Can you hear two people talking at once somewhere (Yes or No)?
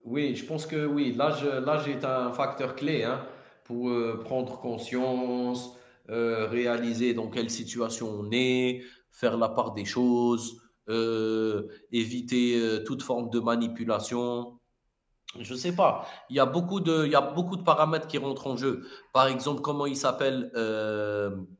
No